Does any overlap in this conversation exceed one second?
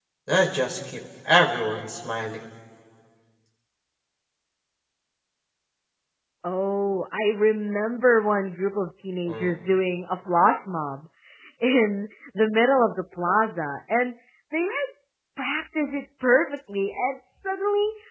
No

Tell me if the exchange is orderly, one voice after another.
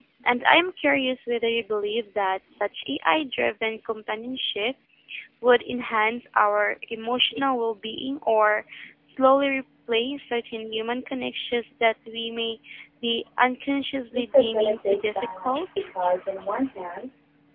No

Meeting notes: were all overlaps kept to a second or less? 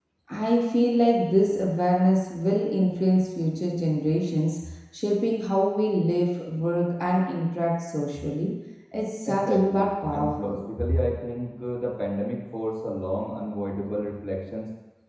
No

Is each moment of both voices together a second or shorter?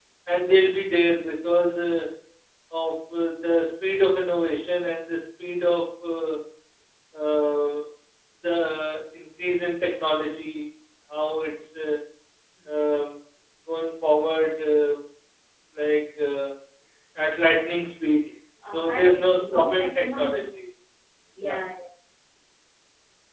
No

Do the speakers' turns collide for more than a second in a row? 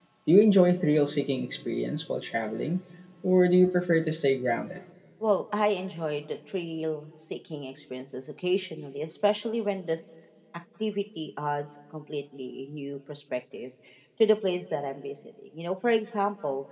No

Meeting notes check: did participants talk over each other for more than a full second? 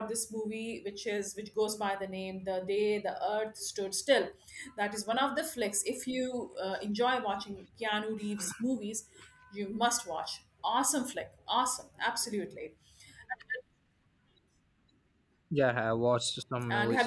No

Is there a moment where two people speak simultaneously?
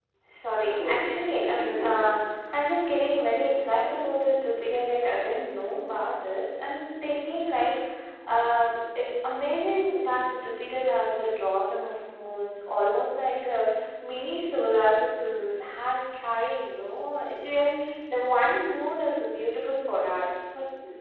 Yes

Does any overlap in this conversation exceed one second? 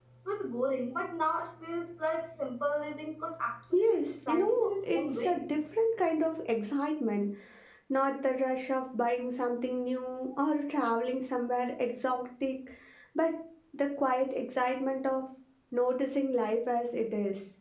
Yes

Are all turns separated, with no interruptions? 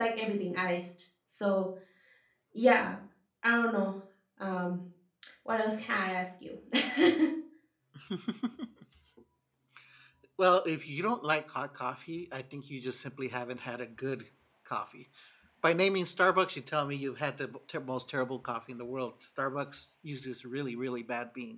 Yes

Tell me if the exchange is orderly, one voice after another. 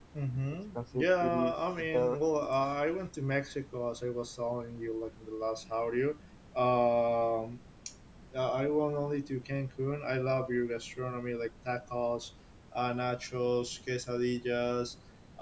No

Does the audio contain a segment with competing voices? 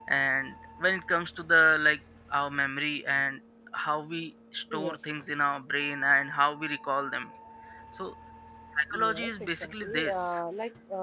Yes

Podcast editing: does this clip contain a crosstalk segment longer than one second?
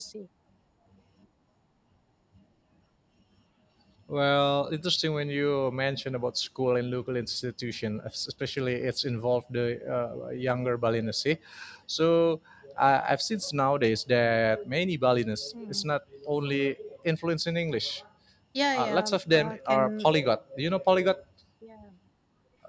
Yes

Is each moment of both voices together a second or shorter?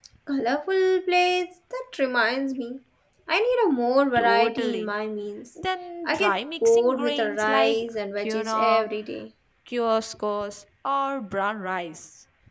No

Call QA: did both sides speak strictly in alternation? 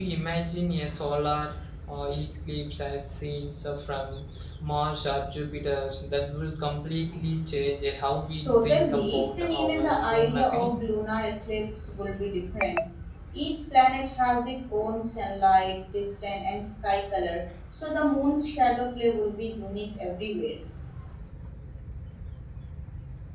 No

